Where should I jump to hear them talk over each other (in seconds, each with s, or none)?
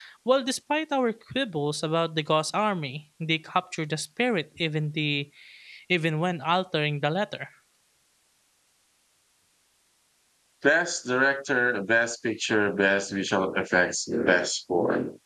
none